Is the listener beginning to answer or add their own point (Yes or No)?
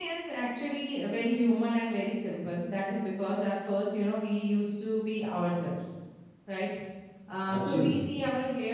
No